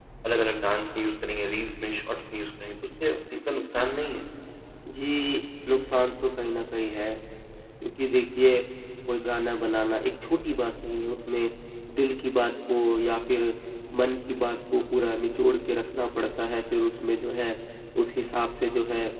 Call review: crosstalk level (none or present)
none